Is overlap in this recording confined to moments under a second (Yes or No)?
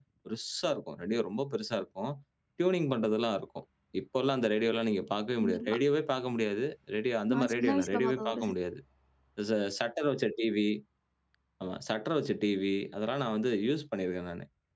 No